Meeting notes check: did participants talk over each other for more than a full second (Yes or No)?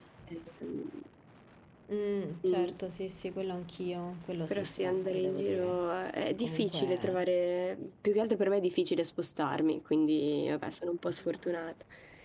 Yes